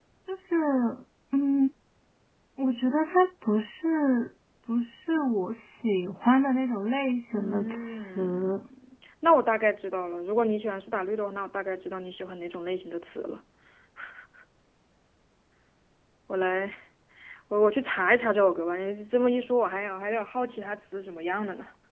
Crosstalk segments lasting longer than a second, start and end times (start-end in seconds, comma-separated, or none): 7.3-8.5